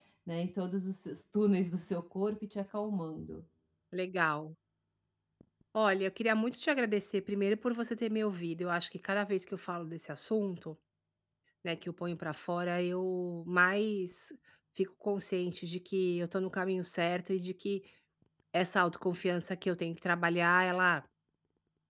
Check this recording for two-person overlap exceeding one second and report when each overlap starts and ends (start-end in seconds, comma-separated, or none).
none